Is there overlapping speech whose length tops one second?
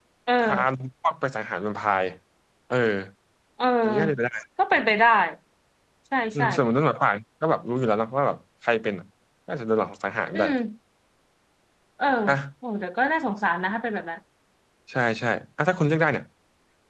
No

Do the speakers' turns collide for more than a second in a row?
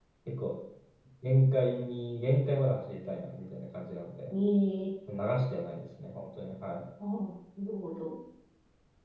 No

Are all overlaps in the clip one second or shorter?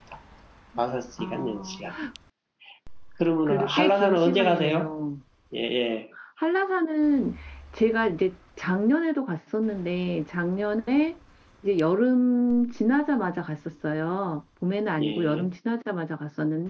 No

